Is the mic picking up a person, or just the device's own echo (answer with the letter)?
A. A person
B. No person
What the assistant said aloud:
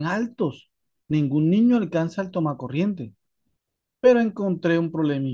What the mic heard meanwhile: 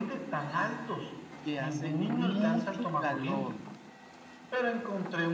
A